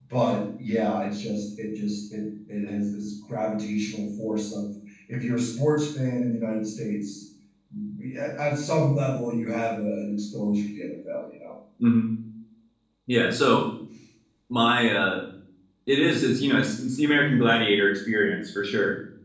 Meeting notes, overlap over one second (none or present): none